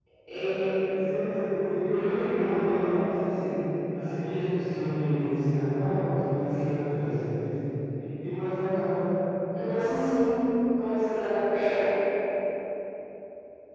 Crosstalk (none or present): none